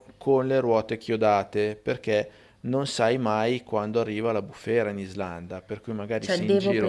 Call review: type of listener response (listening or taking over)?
taking over